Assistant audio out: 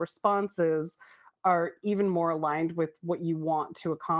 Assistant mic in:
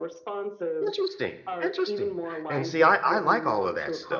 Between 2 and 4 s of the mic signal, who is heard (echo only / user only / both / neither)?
both